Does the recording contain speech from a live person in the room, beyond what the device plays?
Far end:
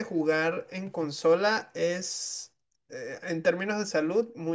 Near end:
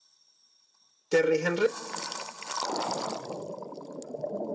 Yes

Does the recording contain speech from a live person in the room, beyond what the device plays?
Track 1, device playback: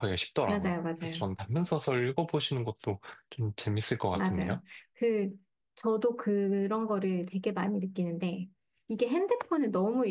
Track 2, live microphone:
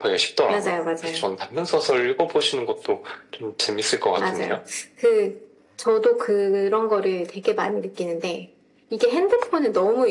No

